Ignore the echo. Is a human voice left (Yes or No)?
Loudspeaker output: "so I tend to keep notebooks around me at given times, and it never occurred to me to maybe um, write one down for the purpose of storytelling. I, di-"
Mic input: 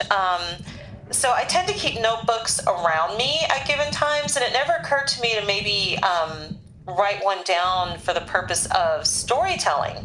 No